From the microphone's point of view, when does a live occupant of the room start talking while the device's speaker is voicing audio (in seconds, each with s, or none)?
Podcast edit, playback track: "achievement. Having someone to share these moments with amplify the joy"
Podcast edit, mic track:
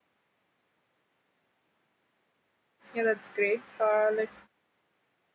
2.9 s